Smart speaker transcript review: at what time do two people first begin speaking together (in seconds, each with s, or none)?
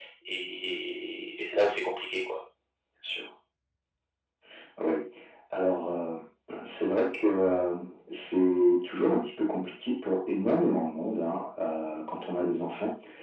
none